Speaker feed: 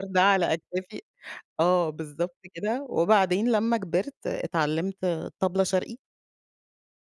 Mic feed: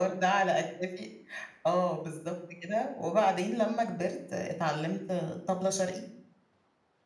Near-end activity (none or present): none